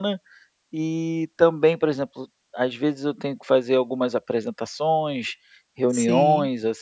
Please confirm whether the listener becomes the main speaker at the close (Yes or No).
No